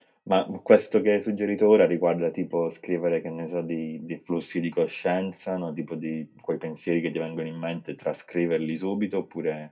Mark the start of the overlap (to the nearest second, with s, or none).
none